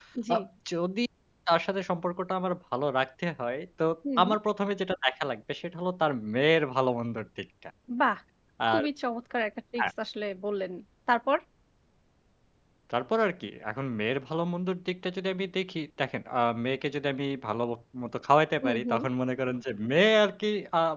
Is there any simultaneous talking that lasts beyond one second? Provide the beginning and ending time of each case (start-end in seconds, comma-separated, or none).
none